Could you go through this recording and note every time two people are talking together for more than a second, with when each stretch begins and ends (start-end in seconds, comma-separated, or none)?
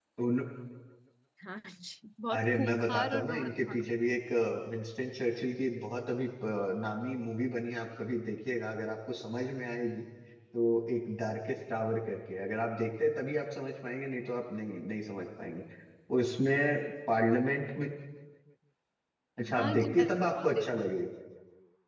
2.3-4.0, 19.5-20.8